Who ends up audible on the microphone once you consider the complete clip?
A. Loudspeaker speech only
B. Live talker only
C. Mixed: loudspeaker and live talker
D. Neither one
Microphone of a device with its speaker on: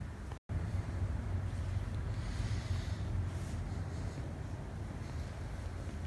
D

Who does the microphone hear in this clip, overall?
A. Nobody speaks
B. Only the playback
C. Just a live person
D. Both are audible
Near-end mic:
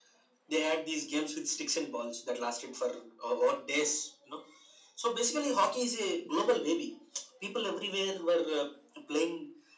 B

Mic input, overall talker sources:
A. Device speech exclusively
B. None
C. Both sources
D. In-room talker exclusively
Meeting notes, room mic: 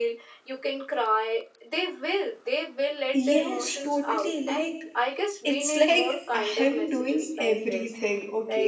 C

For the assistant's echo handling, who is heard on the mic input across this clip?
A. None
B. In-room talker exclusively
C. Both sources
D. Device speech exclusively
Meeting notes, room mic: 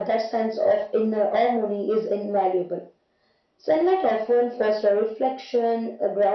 D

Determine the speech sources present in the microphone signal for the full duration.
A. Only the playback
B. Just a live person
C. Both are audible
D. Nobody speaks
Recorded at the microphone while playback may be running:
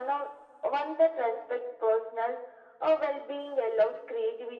A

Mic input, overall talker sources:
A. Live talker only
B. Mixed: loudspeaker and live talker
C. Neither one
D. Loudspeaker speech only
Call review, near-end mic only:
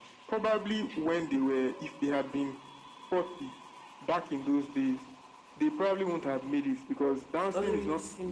B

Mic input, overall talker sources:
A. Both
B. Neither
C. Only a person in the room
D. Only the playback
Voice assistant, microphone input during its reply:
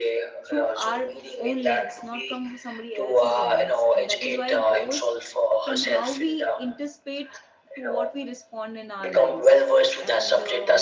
A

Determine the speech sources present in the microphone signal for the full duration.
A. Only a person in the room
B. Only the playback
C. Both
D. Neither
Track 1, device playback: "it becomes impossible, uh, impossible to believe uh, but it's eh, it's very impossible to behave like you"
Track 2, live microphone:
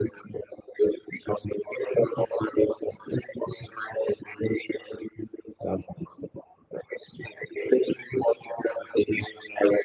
B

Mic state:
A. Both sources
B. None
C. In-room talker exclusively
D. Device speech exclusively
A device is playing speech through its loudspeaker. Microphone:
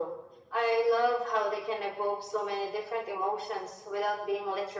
D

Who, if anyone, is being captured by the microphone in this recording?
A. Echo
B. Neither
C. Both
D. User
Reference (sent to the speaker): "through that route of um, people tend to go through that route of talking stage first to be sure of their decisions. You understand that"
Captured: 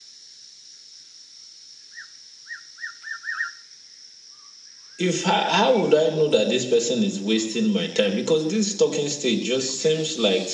D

